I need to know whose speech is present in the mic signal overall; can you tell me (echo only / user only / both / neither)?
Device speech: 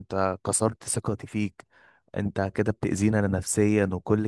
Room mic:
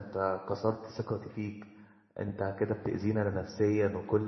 echo only